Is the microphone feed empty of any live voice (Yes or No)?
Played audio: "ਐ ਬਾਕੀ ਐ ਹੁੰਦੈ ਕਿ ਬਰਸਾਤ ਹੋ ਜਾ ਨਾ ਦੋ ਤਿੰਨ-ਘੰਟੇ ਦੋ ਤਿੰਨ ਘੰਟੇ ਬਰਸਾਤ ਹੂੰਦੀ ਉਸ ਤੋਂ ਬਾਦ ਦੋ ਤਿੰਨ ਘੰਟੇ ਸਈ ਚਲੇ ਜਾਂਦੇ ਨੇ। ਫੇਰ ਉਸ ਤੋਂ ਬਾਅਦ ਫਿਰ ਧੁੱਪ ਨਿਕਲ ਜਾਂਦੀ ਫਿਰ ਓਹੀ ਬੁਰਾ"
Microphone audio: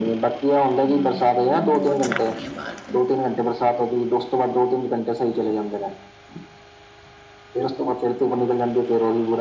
No